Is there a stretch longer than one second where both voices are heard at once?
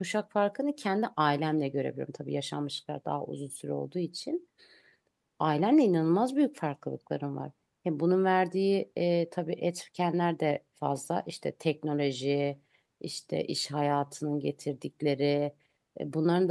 No

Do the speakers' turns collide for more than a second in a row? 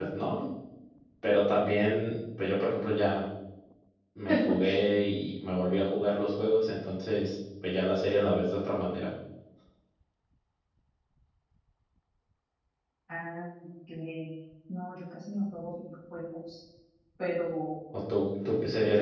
No

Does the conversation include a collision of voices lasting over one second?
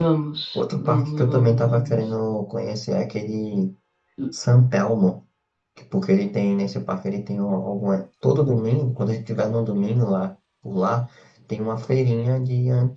Yes, from 0.6 s

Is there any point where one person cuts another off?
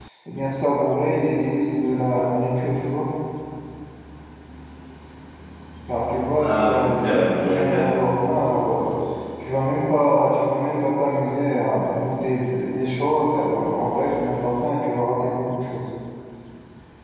Yes, from 6.4 s

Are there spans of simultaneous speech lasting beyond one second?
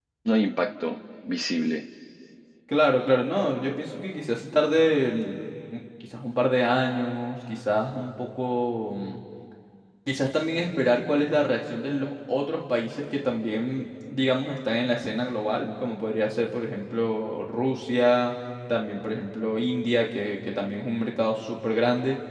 No

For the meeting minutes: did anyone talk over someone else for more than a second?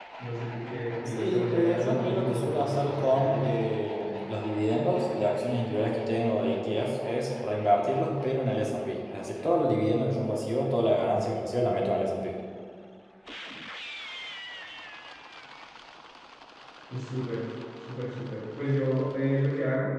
Yes, from 1.1 s

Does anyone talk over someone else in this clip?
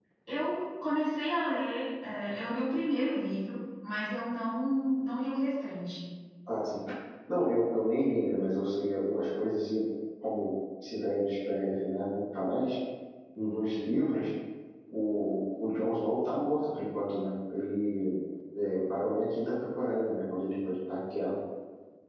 No

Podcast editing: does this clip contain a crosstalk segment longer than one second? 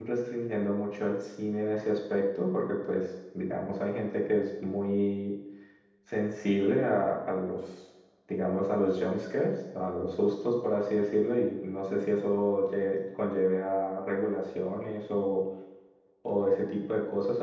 No

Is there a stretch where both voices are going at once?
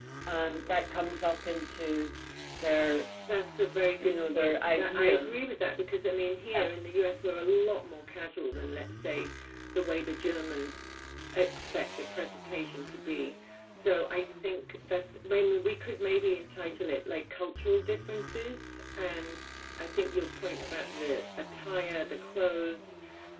Yes, from 4.0 s

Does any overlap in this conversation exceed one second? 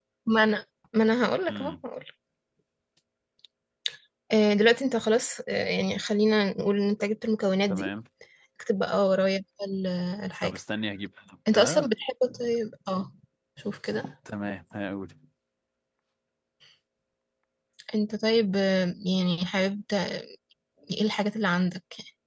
No

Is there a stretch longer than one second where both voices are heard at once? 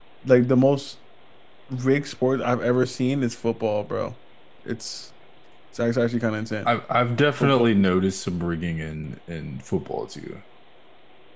No

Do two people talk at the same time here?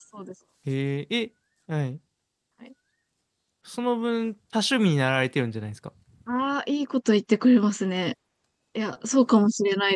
No

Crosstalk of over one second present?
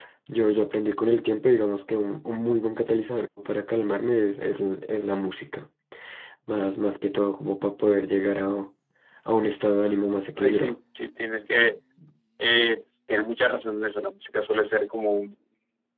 No

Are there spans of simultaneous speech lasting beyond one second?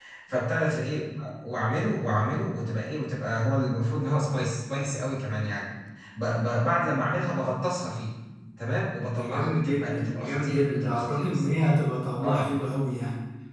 Yes, from 9.2 s

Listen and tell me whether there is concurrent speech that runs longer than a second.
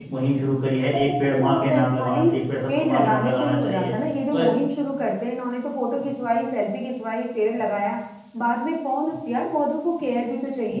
Yes, from 0.9 s

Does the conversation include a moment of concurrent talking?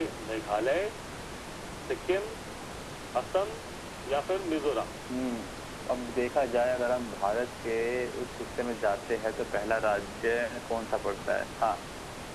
No

